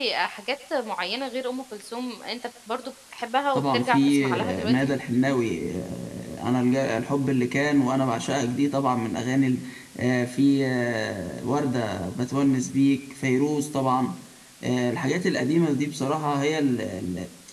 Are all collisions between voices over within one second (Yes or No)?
No